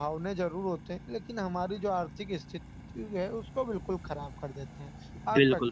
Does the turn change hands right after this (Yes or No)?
Yes